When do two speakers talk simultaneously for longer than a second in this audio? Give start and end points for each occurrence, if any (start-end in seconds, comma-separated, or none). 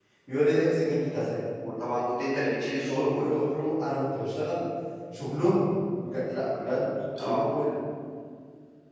none